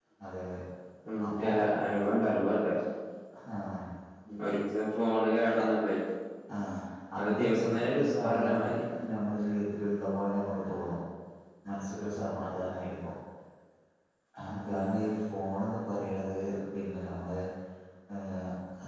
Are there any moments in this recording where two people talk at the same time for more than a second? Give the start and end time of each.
7.2-8.8

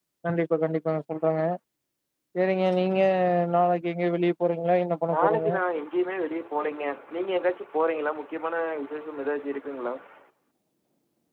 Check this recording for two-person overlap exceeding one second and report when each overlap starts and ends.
none

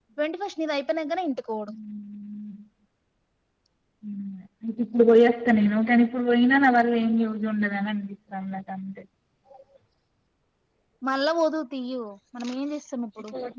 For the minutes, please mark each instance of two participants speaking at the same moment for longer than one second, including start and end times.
none

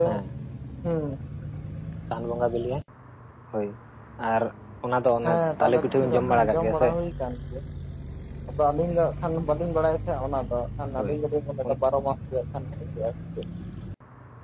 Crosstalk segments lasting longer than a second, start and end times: 5.2-6.9

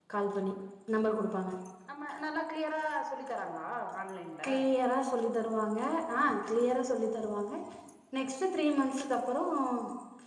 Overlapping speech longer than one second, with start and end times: none

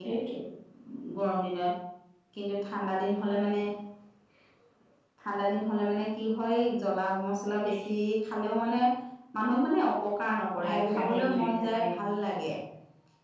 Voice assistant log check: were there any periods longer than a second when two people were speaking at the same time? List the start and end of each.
10.7-11.9

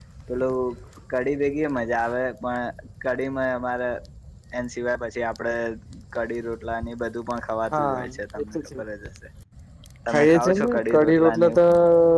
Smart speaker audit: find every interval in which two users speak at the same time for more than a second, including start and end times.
10.1-11.6

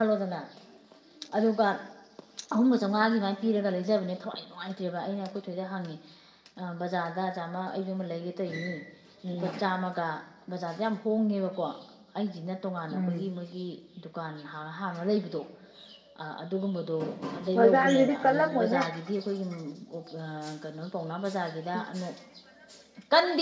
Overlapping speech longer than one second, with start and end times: 17.6-18.8

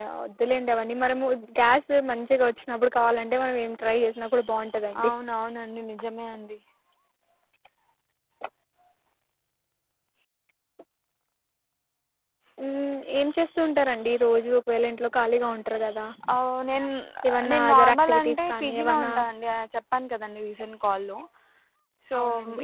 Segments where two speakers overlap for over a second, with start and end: 17.5-19.1

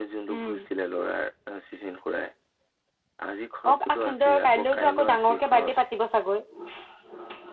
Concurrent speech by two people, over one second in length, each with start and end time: 3.7-5.8

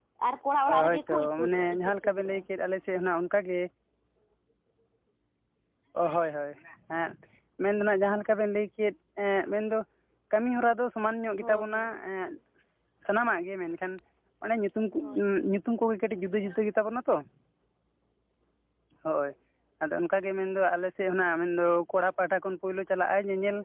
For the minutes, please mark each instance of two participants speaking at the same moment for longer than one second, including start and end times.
0.9-2.4

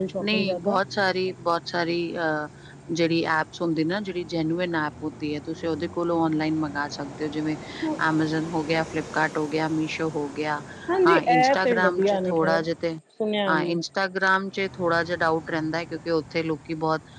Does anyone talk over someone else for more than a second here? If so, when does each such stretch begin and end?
11.1-12.6

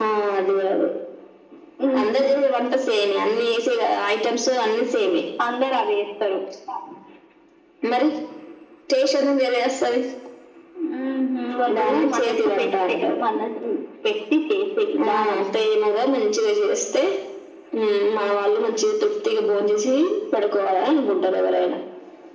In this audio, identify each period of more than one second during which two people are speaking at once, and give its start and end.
11.8-13.2

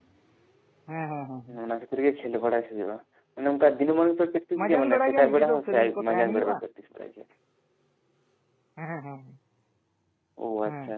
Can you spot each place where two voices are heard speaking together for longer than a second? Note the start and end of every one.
4.6-6.6

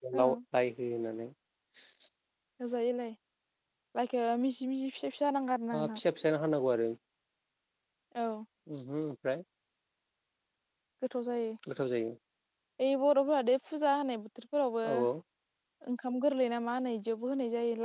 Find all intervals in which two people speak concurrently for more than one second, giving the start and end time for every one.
none

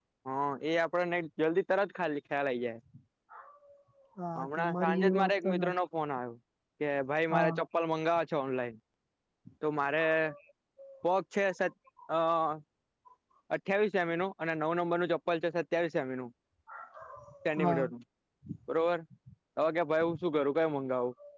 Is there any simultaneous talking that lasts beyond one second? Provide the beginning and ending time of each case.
4.4-5.7

